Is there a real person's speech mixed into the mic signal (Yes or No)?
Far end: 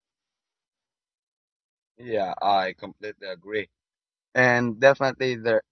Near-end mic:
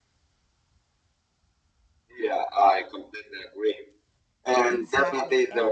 Yes